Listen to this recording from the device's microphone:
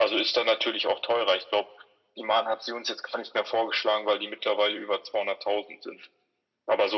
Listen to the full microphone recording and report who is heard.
echo only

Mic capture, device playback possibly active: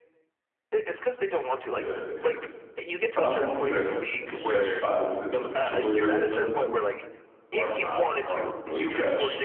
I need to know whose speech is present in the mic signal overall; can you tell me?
both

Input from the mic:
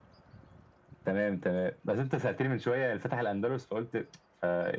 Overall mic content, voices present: echo only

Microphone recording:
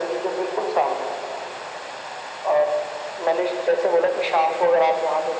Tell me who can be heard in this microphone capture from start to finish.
echo only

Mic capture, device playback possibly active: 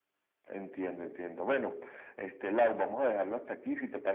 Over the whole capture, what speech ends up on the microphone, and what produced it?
echo only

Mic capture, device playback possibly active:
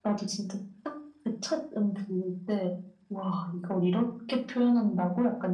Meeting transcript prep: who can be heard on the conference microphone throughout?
echo only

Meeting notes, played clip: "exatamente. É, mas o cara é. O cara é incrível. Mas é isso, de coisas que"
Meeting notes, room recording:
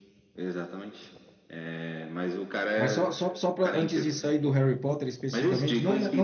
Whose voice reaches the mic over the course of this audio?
both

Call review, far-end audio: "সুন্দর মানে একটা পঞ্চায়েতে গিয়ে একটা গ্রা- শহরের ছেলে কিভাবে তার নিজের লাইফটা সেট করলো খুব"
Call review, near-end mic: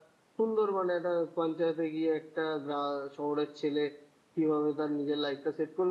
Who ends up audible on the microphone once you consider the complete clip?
echo only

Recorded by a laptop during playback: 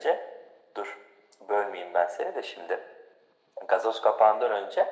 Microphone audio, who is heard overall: echo only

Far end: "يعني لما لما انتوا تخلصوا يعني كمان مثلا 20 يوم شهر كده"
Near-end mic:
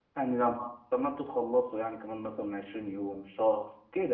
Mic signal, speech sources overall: echo only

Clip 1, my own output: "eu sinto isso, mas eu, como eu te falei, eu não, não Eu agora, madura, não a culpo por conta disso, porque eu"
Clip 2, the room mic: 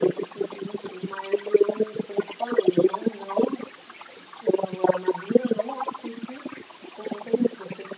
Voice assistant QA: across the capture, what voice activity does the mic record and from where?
echo only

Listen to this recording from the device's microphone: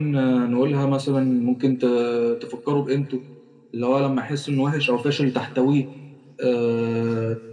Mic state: echo only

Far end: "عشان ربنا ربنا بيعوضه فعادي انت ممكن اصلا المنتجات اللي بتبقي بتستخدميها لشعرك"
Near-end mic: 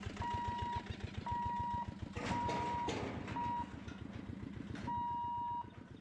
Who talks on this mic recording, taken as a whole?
neither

